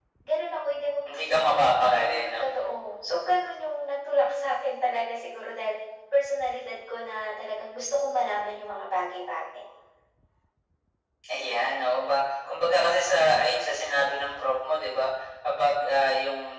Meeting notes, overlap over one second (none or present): none